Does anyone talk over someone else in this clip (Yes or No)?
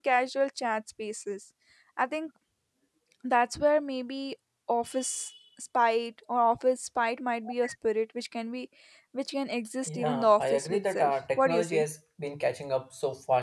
Yes